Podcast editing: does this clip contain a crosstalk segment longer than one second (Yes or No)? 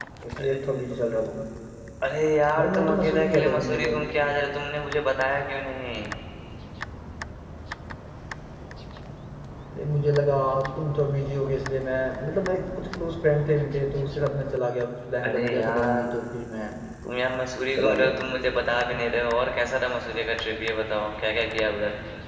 Yes